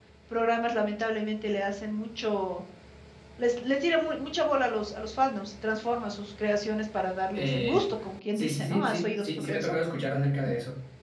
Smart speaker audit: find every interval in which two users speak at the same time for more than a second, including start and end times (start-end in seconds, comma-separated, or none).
8.3-9.7